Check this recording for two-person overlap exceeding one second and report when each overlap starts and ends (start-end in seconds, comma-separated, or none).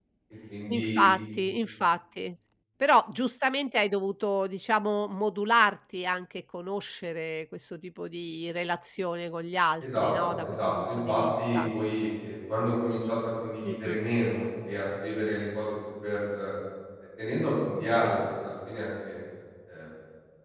9.8-11.6